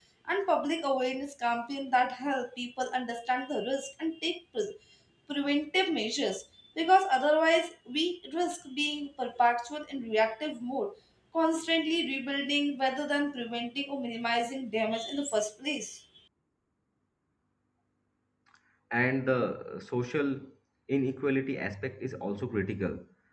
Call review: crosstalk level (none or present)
none